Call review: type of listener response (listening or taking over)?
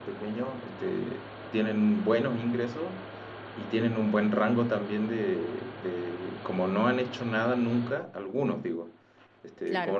listening